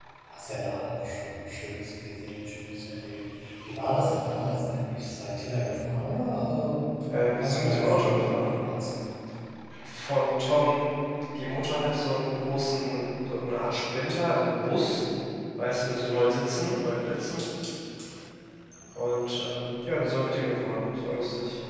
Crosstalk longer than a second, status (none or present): present